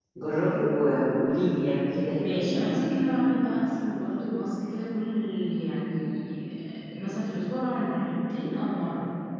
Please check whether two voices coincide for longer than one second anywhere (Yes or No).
No